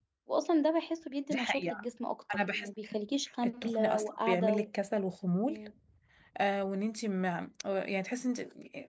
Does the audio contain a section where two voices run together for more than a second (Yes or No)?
Yes